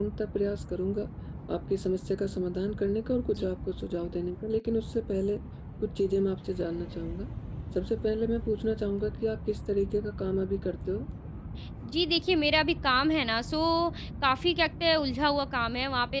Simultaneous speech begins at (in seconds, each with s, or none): none